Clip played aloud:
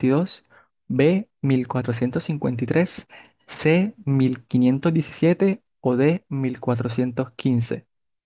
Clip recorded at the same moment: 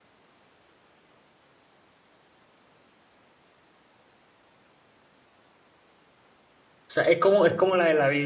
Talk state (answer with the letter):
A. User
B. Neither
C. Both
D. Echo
A